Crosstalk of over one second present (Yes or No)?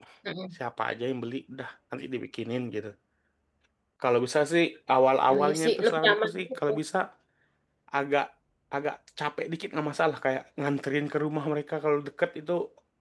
Yes